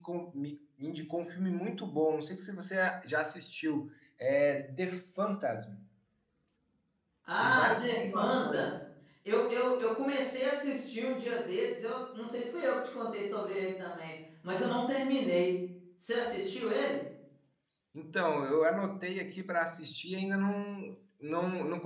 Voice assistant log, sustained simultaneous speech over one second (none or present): present